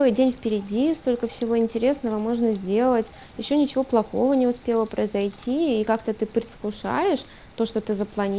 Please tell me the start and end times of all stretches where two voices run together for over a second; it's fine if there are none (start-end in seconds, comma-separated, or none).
none